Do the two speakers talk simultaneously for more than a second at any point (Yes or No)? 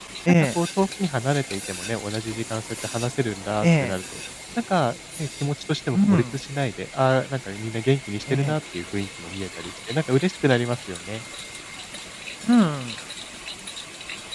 No